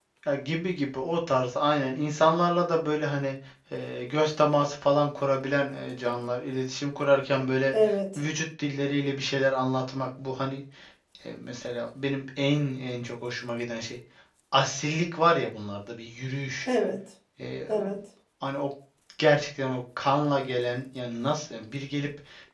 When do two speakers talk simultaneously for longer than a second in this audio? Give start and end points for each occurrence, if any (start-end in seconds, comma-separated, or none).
none